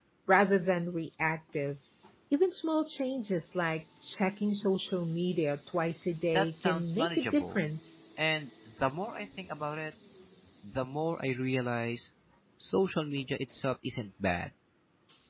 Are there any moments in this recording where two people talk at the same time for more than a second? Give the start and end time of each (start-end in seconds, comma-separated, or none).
6.3-7.7